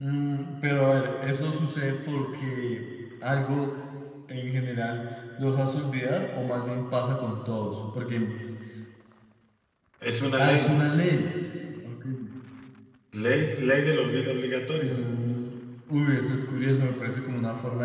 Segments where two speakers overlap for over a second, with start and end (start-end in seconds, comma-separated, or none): none